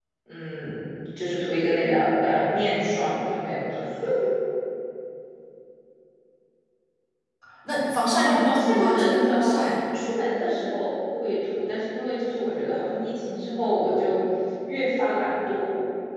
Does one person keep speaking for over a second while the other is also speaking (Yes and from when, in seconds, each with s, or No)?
Yes, from 8.2 s